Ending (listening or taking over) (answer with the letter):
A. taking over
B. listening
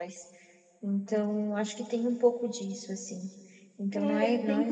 A